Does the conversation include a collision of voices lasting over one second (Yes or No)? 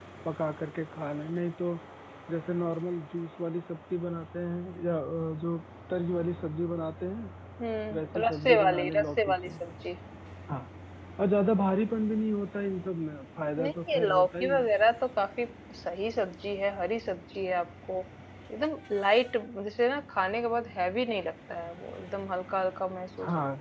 Yes